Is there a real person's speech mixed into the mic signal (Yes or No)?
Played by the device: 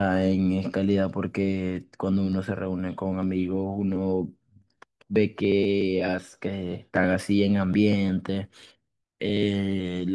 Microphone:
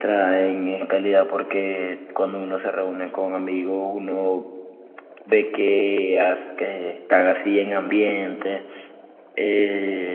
No